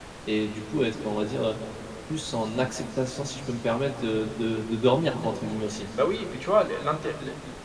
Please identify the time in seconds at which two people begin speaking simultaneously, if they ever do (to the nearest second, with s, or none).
none